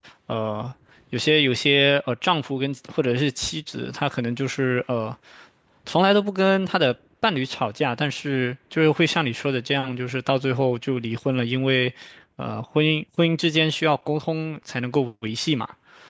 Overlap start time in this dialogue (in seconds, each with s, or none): none